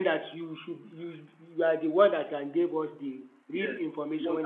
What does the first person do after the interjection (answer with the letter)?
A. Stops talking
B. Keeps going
A